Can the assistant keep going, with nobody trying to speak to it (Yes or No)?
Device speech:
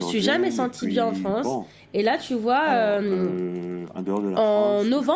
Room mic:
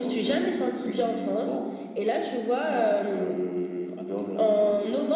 Yes